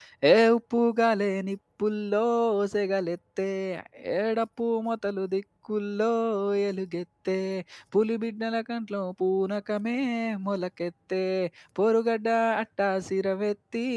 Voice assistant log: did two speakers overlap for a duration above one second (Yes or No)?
No